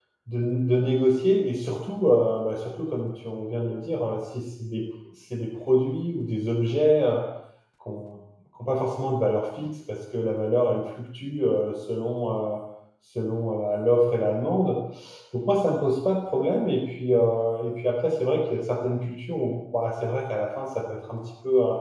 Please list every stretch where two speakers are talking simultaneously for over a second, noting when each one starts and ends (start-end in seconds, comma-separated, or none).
none